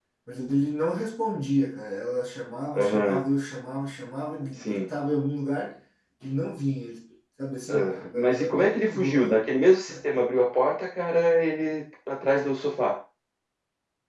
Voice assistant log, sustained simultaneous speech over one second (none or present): present